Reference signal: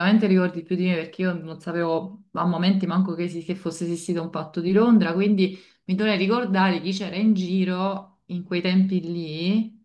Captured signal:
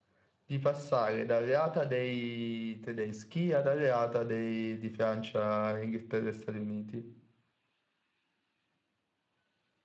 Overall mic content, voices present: user only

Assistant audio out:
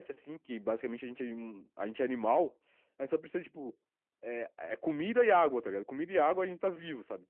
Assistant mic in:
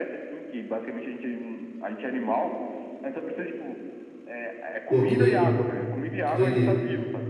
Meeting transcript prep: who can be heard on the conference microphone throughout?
both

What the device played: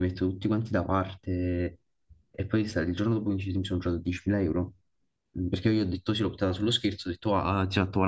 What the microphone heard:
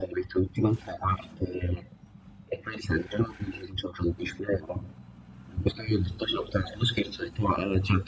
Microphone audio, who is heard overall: echo only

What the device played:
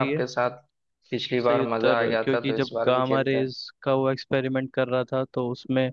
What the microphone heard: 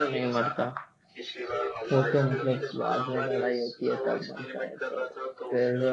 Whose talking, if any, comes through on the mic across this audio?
both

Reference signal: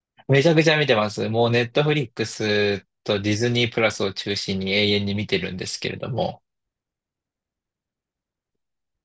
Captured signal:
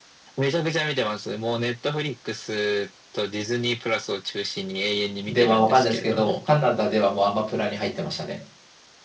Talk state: both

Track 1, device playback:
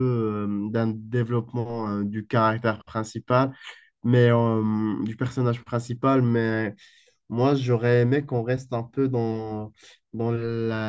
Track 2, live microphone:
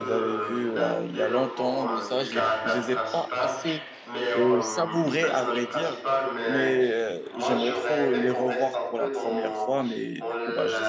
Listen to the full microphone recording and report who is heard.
both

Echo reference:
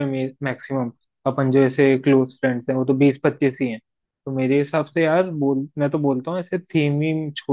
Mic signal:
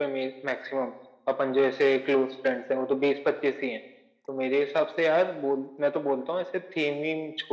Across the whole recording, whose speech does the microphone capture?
echo only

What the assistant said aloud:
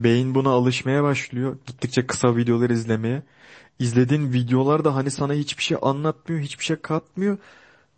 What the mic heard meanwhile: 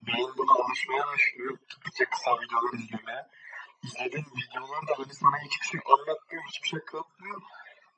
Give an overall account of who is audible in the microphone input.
echo only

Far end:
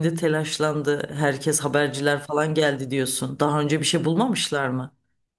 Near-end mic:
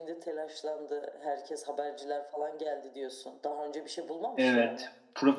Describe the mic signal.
both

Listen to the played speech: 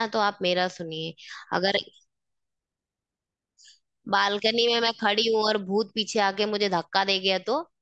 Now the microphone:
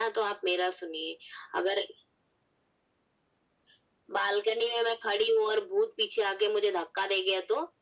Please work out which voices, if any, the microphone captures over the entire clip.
echo only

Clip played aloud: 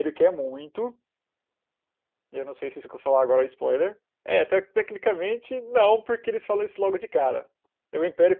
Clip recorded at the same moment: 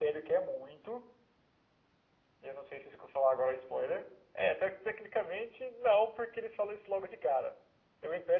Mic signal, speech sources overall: echo only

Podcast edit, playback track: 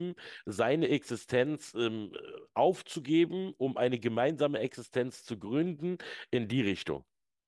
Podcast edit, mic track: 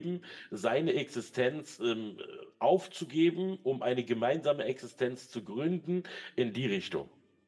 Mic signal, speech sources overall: echo only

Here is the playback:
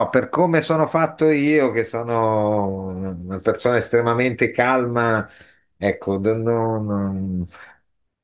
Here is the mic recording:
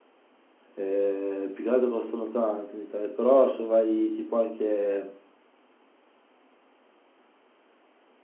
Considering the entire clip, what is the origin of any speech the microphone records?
user only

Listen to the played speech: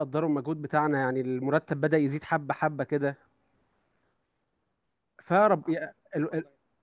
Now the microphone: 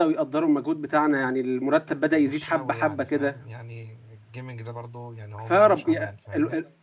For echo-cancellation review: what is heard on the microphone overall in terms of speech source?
both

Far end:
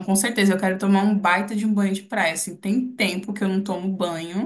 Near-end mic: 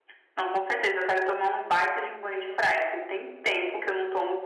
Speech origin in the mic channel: echo only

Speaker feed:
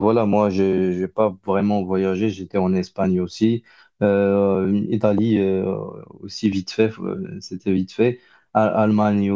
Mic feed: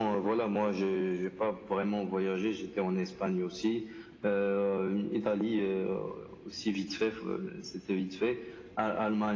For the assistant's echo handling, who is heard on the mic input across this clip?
echo only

